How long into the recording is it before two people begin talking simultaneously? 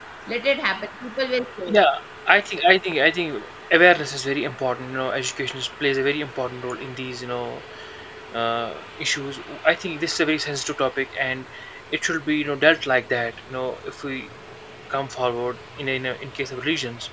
none

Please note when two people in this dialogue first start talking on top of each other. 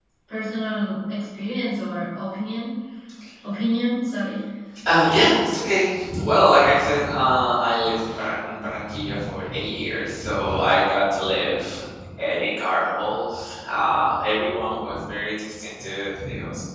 none

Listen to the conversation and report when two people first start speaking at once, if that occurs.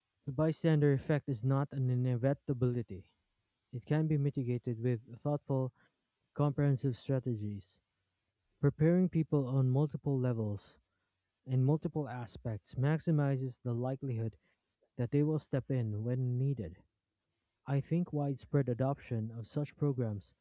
none

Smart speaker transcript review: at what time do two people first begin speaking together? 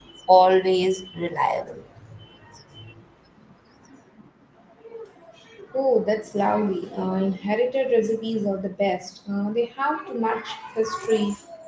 none

